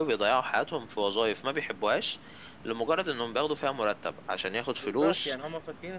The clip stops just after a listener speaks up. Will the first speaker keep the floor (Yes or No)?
No